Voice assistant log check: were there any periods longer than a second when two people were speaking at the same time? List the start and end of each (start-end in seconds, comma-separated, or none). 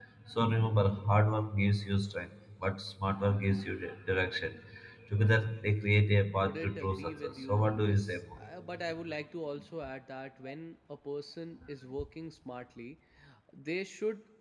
6.4-8.2